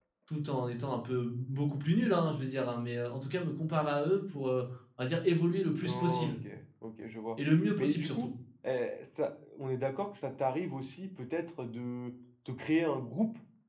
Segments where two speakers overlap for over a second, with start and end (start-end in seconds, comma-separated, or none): none